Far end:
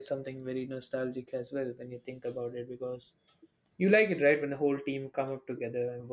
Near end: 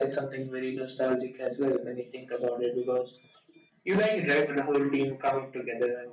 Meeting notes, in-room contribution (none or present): none